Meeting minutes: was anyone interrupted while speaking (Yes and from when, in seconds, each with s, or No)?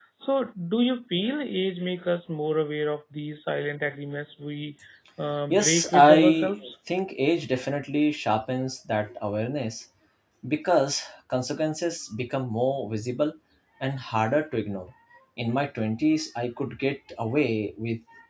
Yes, from 5.5 s